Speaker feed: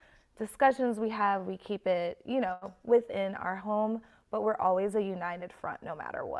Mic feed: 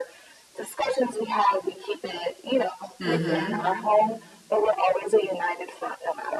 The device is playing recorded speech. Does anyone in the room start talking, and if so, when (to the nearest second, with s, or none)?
3 s